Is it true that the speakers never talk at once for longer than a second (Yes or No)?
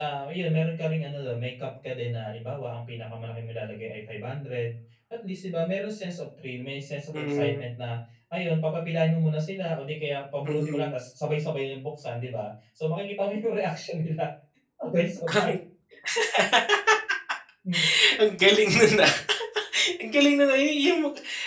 Yes